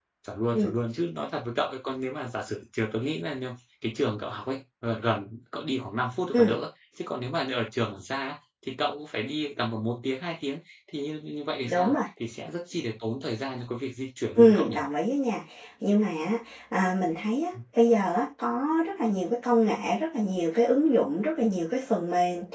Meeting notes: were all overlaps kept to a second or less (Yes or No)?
Yes